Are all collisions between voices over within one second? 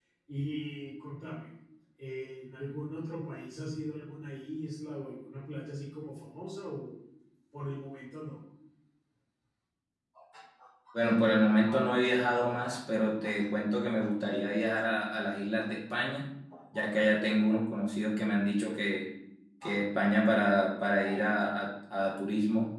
Yes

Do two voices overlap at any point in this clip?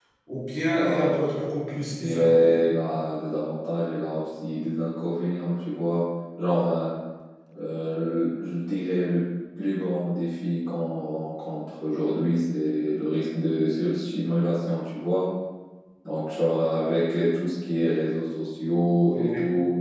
Yes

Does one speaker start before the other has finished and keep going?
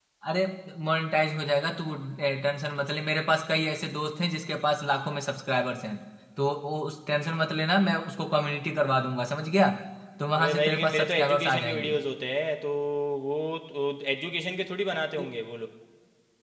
Yes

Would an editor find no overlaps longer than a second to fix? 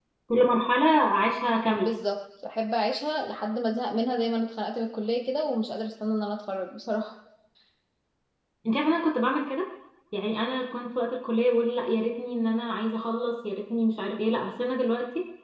Yes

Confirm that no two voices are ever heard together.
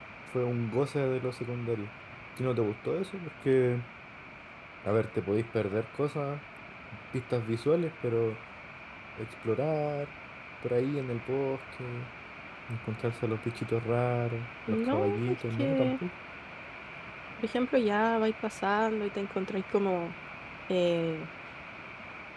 No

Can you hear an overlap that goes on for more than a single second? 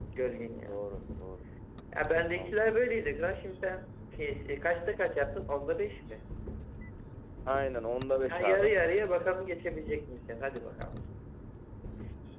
No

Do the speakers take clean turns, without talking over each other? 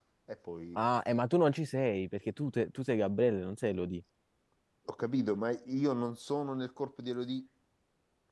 Yes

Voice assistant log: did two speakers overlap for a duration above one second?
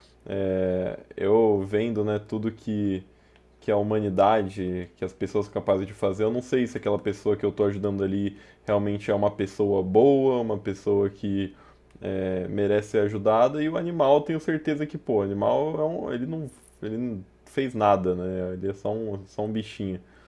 No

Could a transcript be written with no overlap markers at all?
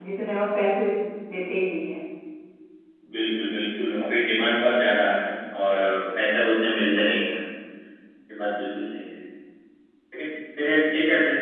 Yes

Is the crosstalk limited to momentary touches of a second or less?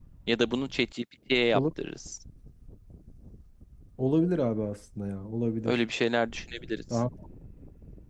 Yes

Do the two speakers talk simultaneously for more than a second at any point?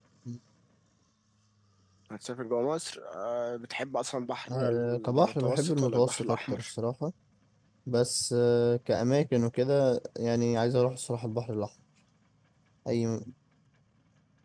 Yes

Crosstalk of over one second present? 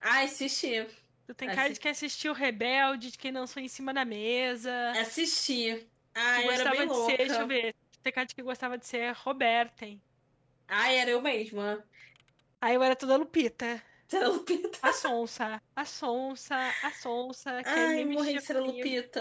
Yes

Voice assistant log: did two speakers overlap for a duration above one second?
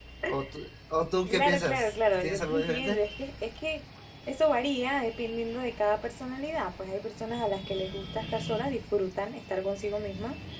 Yes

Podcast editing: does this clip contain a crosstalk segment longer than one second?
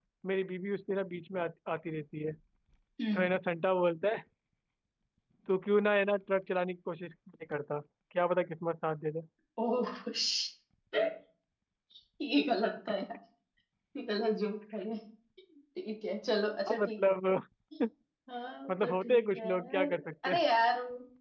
Yes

